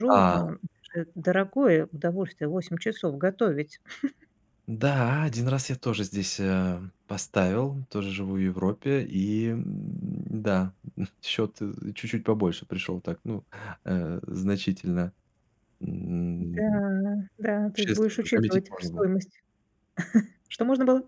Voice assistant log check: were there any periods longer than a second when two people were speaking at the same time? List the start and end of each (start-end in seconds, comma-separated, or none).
17.8-19.0